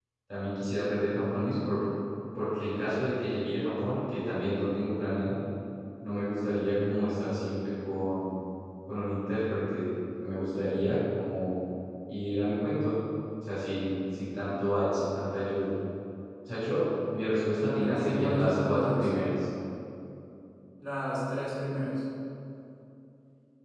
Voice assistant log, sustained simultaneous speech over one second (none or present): present